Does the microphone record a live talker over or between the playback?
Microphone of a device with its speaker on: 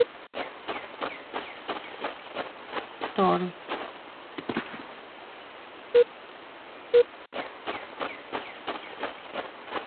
Yes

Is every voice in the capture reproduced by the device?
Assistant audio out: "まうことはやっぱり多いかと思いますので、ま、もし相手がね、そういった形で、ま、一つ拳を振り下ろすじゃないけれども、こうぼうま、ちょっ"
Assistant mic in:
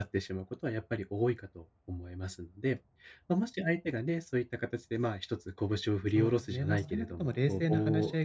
No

